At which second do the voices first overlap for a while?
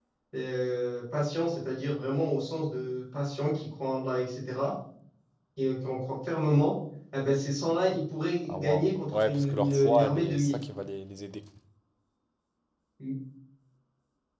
8.5 s

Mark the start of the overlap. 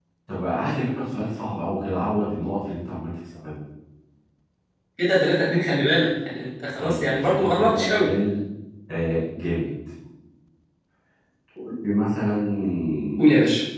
6.8 s

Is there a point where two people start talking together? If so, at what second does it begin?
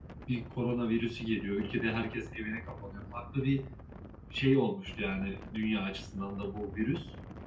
none

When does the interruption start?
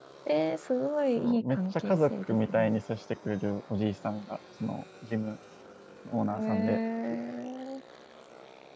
1.2 s

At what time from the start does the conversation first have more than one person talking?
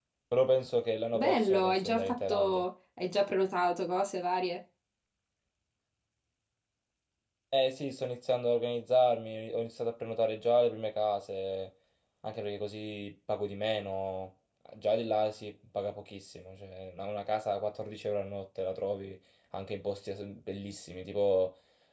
1.1 s

